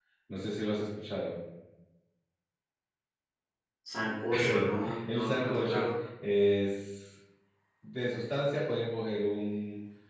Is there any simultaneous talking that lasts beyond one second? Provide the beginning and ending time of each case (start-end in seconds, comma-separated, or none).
4.4-5.9